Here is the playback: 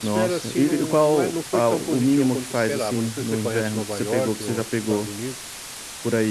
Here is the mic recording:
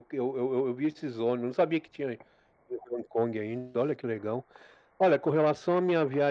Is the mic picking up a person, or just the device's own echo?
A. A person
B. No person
A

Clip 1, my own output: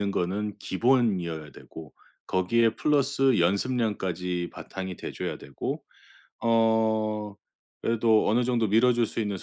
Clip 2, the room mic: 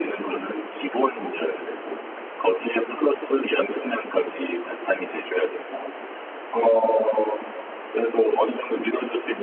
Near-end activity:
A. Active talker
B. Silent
B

